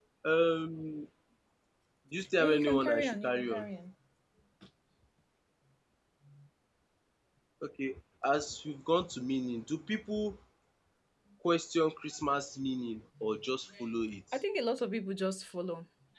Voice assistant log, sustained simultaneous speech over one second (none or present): present